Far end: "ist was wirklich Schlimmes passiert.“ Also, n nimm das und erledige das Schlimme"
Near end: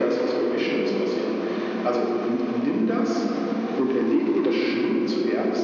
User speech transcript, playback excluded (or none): none